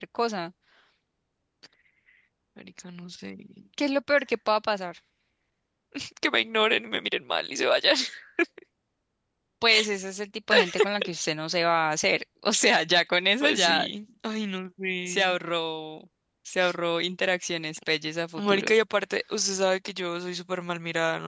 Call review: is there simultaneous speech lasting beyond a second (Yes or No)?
No